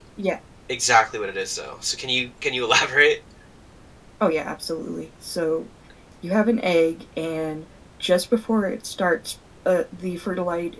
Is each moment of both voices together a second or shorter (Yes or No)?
Yes